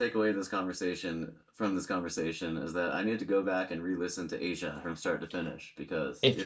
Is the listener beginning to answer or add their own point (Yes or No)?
Yes